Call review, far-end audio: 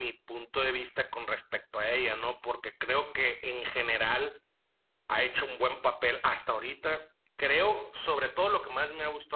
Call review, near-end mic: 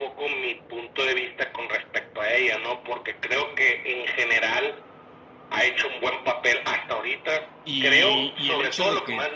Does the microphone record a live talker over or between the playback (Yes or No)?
Yes